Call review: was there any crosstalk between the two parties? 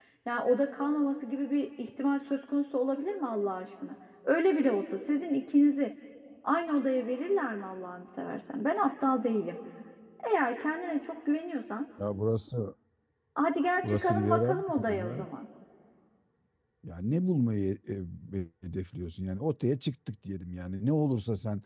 Yes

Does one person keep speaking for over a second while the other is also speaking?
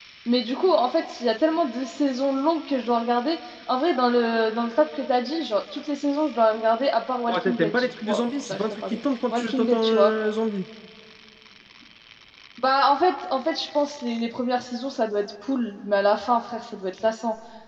Yes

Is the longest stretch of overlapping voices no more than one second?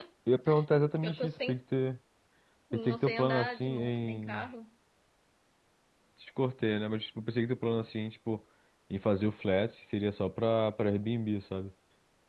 No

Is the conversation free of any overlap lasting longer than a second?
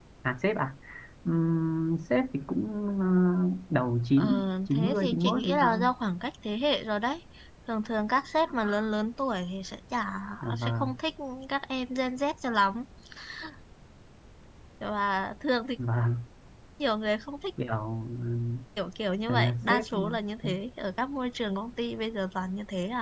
No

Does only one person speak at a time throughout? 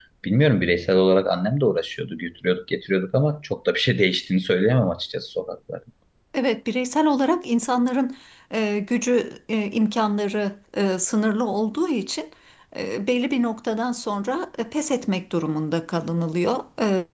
Yes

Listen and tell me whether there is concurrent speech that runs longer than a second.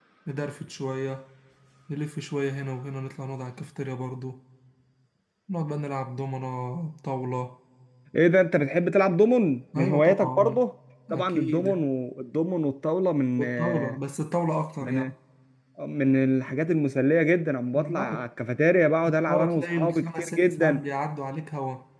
Yes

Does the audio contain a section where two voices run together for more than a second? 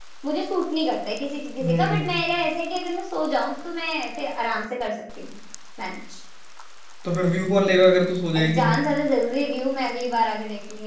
No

